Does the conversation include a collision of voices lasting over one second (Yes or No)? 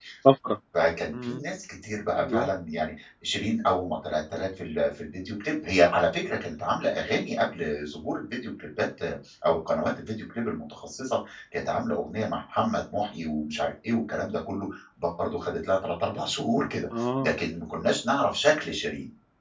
No